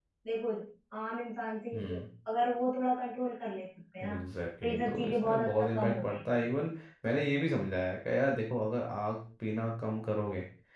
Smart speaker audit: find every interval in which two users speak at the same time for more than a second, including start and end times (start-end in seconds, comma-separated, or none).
4.6-6.3